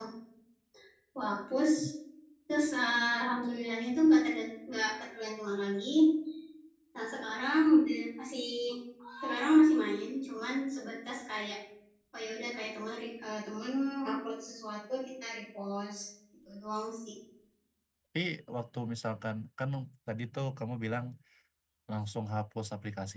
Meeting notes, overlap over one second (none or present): none